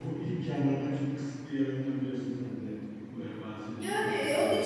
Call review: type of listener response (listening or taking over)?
taking over